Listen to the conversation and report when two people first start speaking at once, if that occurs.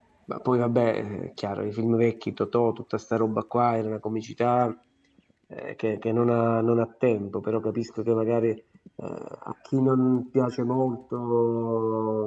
none

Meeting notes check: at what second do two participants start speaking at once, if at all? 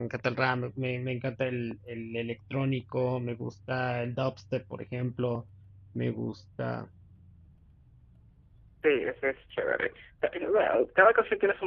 none

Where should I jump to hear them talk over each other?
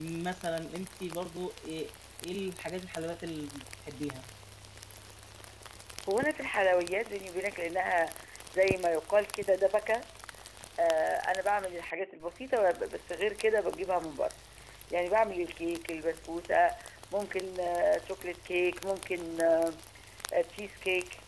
none

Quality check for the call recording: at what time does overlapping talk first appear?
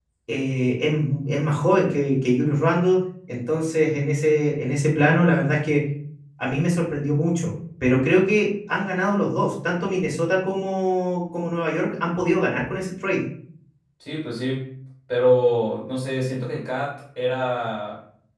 none

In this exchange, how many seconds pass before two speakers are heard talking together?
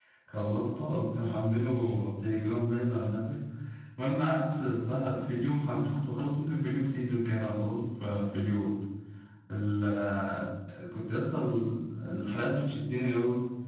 none

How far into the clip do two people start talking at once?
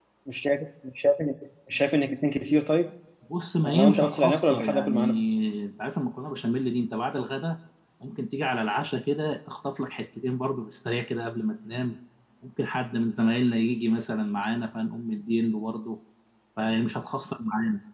3.6 s

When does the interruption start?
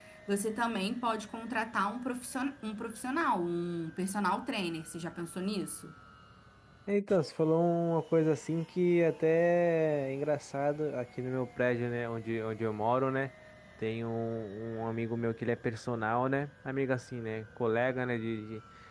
none

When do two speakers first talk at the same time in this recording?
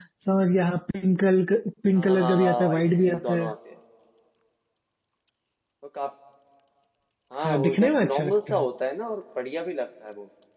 1.9 s

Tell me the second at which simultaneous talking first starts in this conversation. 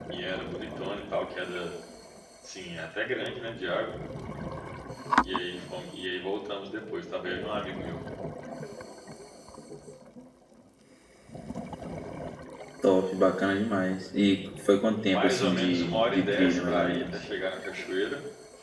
15.0 s

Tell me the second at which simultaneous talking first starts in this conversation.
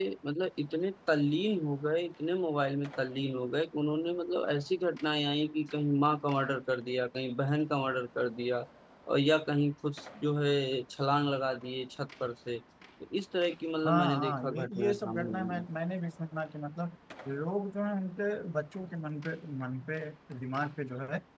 13.8 s

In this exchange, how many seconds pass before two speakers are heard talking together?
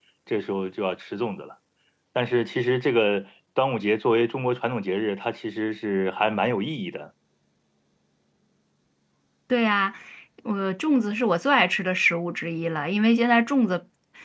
none

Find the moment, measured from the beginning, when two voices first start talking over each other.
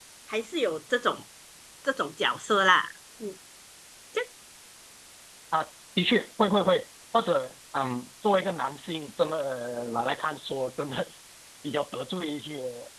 none

